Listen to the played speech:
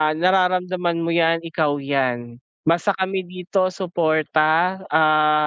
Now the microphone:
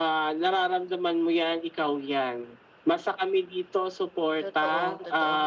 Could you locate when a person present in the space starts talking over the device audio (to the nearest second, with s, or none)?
4 s